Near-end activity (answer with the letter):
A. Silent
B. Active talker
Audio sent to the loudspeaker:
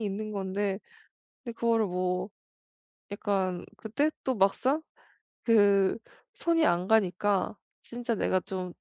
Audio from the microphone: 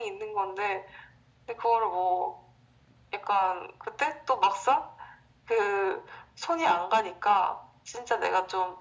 A